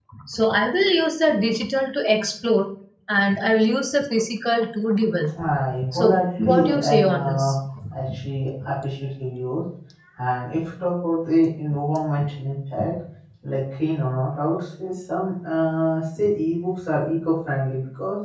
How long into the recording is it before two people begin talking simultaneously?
5.9 s

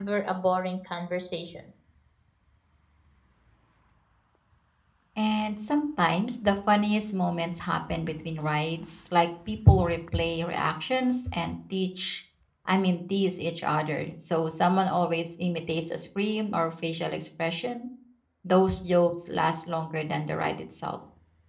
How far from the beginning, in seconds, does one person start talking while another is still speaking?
none

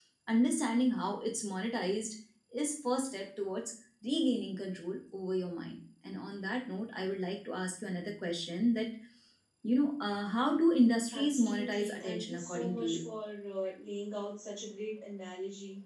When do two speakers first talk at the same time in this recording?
11.1 s

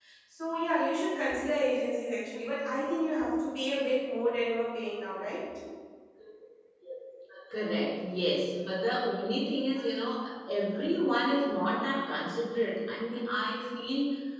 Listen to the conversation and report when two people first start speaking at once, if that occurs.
none

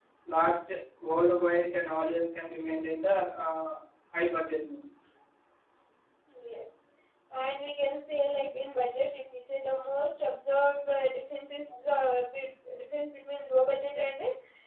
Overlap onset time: none

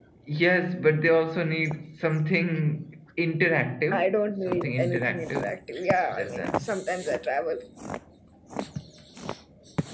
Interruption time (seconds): 3.9 s

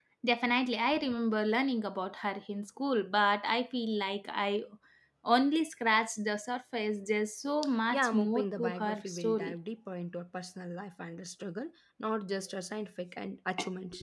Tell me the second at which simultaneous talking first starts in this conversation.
7.9 s

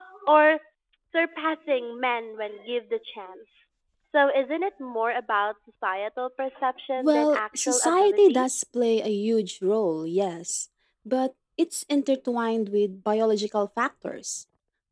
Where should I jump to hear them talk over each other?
7.0 s

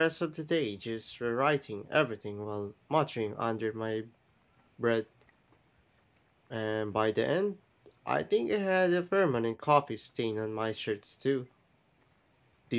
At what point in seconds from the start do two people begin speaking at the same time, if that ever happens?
none

